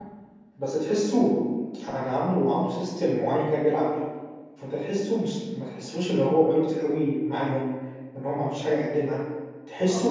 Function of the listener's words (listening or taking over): listening